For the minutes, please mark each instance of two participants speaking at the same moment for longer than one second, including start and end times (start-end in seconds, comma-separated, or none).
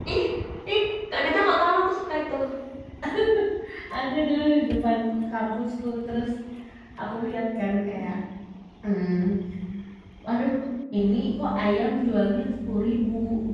none